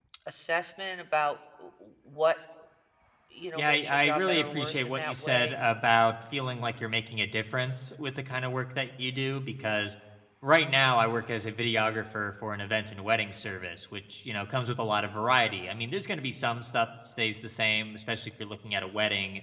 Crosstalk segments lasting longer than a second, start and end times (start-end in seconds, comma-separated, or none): 3.6-5.6